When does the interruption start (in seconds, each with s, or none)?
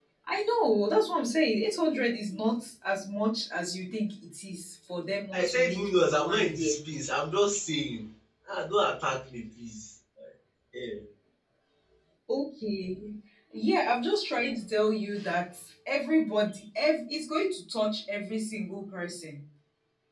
5.3 s